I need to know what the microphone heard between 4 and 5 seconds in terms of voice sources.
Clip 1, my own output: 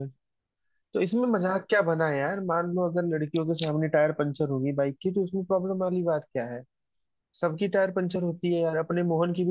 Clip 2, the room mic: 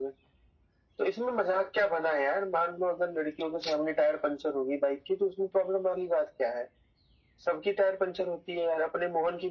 echo only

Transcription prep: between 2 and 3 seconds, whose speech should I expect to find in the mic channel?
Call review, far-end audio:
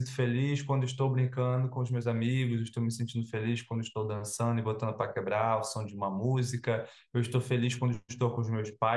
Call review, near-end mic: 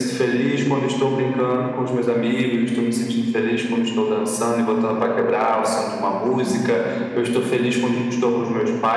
echo only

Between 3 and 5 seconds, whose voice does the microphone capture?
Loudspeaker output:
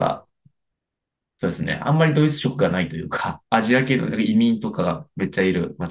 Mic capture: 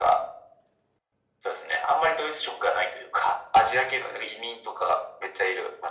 echo only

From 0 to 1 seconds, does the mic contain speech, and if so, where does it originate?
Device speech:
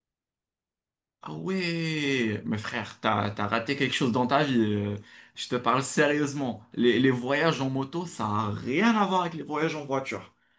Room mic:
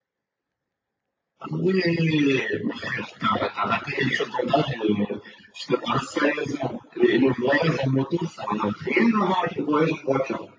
neither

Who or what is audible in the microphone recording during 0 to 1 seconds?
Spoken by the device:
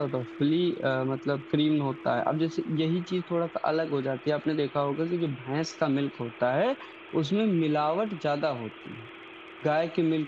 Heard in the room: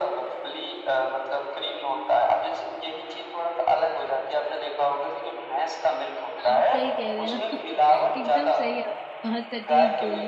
echo only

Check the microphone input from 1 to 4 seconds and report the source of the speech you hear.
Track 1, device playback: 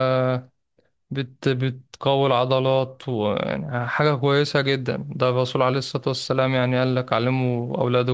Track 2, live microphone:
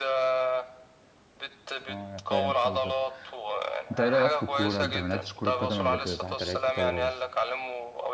both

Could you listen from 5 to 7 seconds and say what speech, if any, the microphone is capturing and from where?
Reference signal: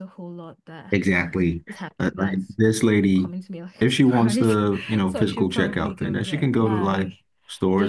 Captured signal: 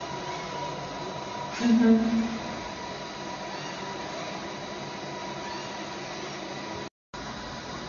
neither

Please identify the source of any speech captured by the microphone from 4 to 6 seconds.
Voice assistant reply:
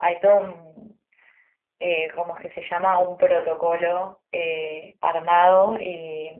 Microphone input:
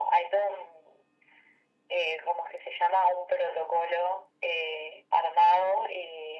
echo only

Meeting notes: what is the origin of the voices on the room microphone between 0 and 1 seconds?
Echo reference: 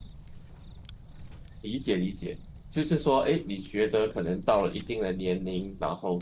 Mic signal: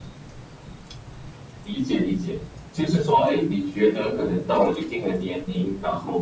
neither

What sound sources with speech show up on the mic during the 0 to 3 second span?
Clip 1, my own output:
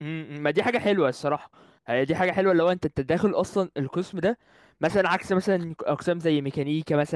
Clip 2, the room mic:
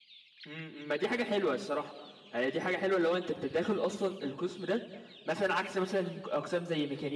echo only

